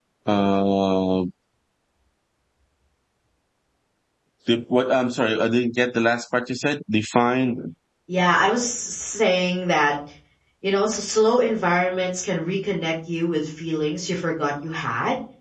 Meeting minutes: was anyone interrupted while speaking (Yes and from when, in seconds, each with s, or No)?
No